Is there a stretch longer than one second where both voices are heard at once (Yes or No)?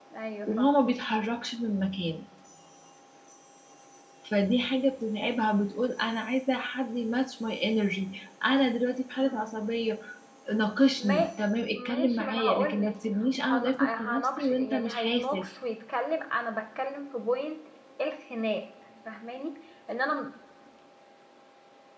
Yes